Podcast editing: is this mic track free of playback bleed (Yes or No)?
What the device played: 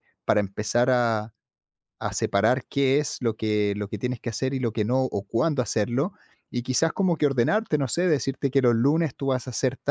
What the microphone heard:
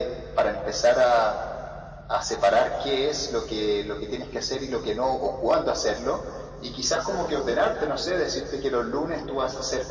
No